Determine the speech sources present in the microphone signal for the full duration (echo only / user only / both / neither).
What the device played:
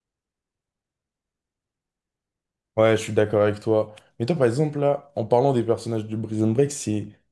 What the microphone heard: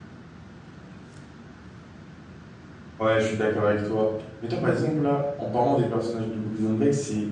echo only